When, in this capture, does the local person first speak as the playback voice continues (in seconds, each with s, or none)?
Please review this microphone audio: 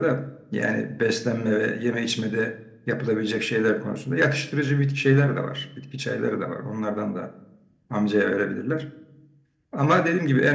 none